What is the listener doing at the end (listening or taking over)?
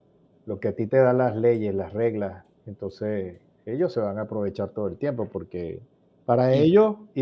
listening